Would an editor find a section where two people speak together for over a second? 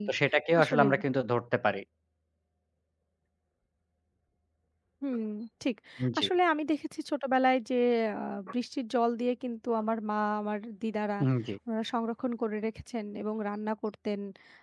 No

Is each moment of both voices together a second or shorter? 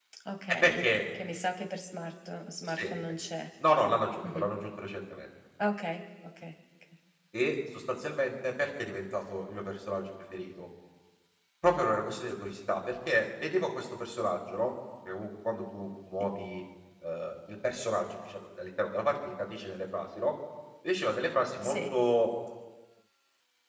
Yes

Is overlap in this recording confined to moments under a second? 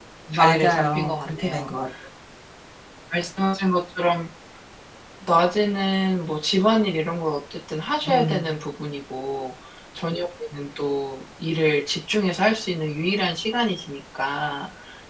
No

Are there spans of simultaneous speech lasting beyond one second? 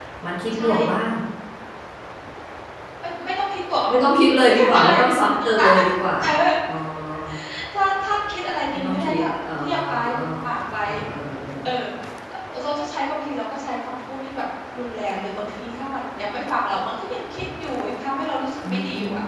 Yes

